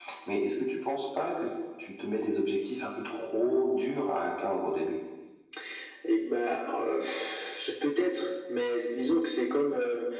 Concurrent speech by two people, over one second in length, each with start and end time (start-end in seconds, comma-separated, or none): none